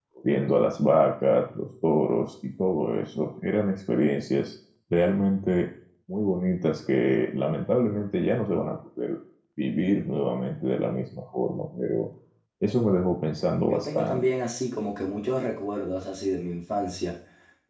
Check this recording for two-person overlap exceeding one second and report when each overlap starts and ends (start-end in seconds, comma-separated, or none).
none